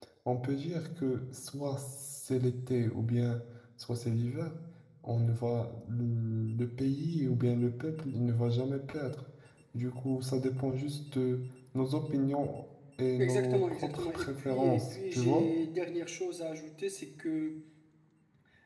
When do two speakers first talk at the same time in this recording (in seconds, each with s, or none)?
13.2 s